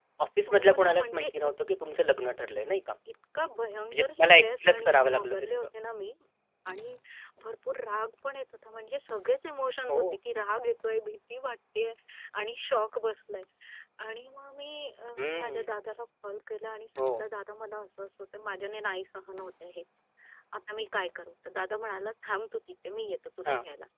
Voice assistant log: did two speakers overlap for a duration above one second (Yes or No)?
Yes